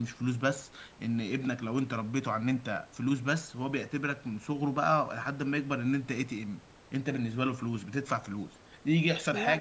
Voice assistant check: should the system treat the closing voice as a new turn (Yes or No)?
No